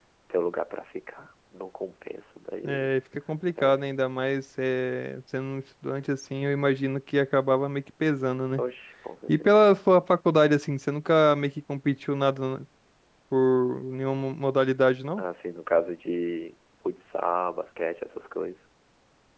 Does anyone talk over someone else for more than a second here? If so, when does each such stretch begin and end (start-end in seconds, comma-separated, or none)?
none